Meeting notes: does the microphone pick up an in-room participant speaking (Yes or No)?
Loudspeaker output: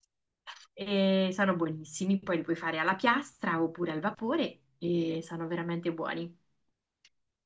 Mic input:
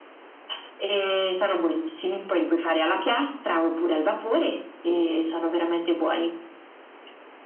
No